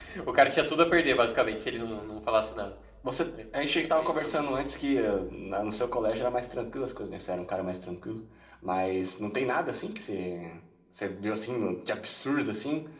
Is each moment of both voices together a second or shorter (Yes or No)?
Yes